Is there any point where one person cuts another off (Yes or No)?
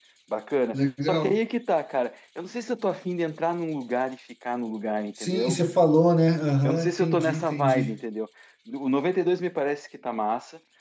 Yes